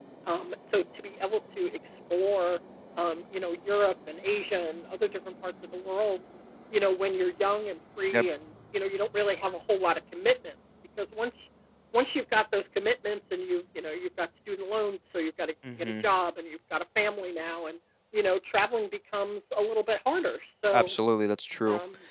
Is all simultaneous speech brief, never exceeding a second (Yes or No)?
Yes